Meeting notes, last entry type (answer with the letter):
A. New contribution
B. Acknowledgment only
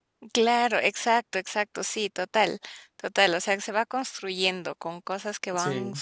B